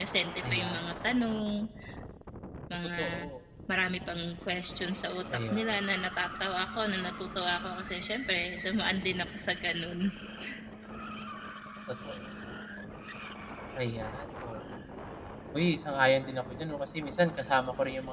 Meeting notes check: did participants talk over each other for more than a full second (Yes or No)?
No